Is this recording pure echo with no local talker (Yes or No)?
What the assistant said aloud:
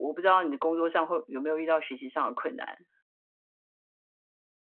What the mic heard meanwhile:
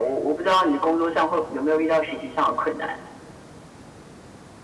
Yes